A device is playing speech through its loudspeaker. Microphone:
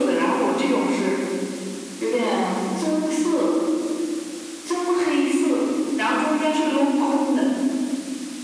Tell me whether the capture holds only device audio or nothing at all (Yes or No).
Yes